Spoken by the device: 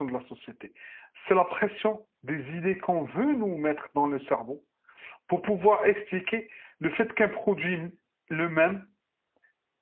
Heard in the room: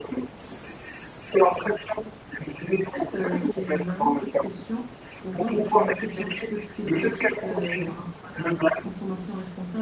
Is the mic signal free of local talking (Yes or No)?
No